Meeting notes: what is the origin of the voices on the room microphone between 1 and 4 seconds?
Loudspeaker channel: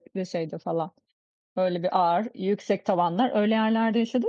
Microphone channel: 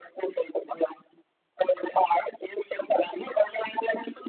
echo only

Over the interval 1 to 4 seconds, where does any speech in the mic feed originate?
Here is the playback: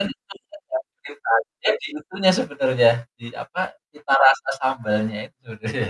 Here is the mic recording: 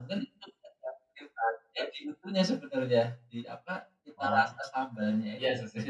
echo only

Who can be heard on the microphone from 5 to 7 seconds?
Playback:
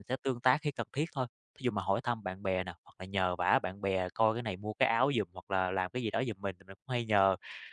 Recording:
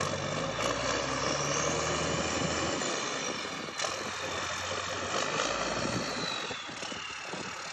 neither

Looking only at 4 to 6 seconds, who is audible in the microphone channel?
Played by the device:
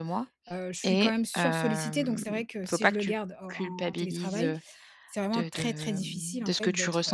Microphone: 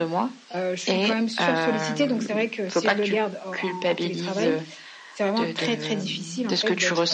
echo only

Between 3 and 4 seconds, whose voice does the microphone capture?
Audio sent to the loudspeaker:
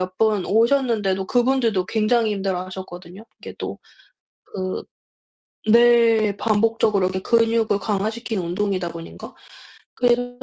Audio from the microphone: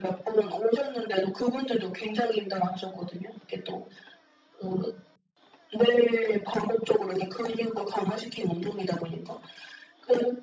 echo only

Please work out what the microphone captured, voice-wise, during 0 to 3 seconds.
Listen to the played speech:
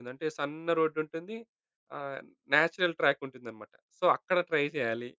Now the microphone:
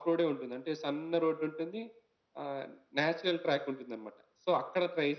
echo only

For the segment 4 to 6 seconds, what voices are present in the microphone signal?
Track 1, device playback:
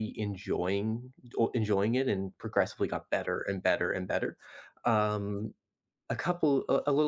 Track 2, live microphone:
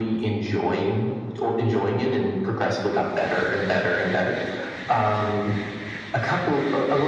echo only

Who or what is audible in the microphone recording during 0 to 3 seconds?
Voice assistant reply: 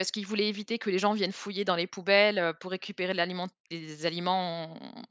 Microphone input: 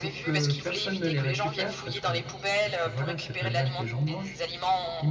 both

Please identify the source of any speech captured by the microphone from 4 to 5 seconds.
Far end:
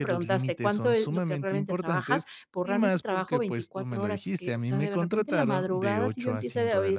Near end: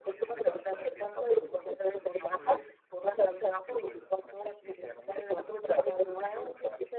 both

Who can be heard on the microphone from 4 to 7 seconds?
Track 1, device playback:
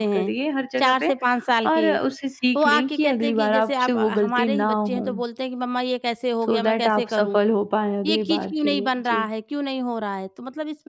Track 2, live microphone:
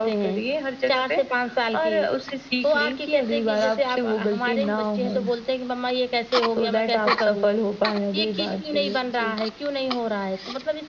echo only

